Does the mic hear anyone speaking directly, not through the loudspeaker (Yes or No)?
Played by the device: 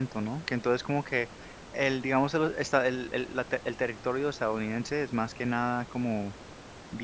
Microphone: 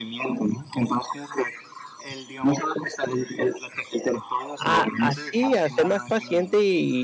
Yes